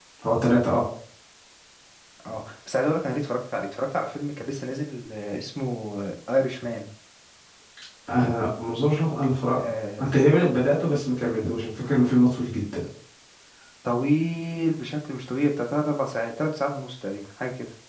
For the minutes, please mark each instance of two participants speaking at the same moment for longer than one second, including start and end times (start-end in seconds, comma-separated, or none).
none